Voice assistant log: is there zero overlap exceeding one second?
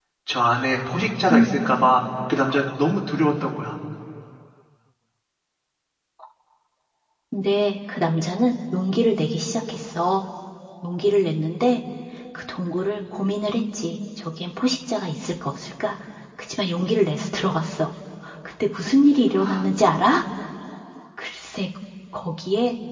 Yes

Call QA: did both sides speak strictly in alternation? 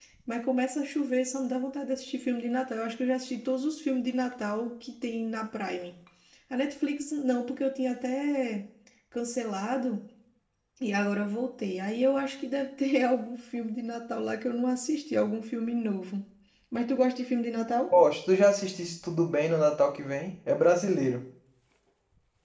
Yes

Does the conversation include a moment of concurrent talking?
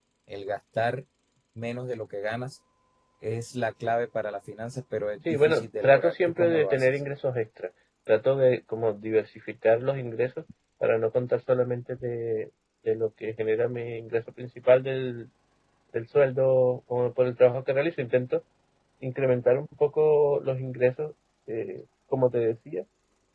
Yes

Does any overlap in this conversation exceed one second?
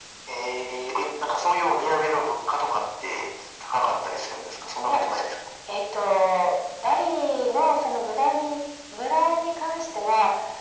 No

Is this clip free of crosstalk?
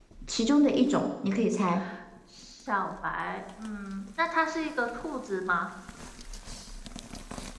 Yes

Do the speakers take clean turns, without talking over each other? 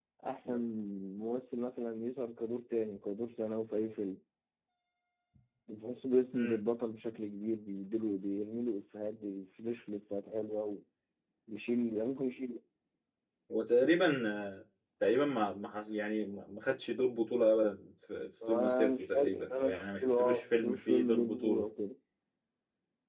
No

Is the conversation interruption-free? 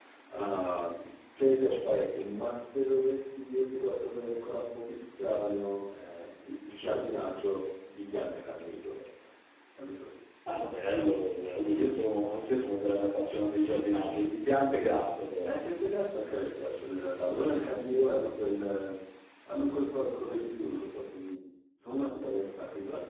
Yes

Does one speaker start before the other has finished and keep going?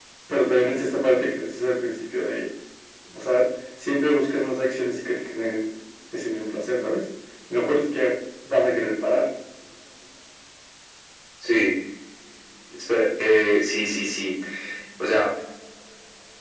No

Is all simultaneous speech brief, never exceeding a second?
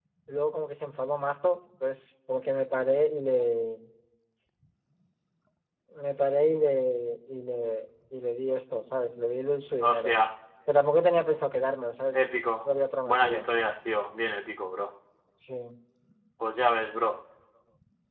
Yes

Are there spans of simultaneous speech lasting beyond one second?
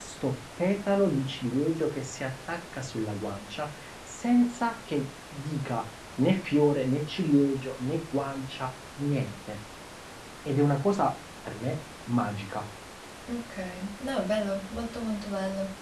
No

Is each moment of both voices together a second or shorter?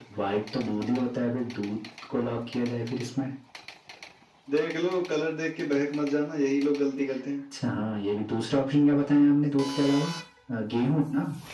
Yes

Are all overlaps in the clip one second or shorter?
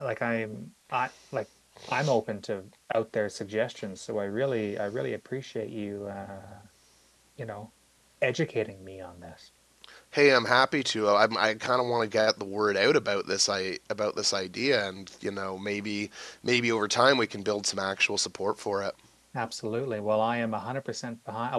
Yes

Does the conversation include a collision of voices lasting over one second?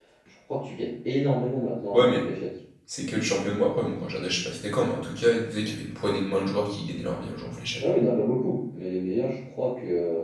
No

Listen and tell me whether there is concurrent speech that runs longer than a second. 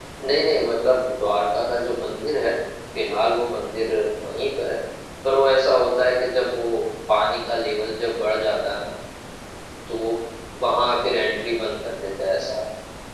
No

